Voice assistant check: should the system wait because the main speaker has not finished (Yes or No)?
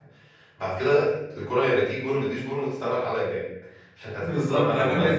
No